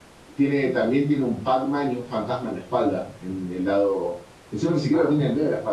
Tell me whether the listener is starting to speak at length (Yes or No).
No